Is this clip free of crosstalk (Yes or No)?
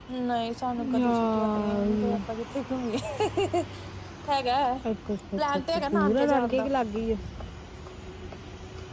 No